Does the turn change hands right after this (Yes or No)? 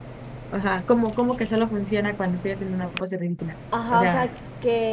Yes